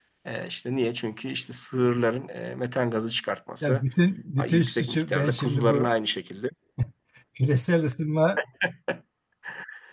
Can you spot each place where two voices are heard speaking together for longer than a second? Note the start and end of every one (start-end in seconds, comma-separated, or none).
4.4-5.9